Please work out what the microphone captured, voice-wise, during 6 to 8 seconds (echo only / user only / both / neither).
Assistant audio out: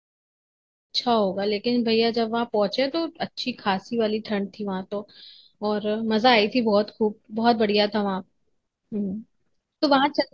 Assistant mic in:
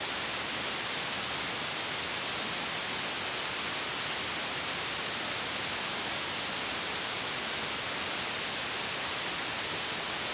neither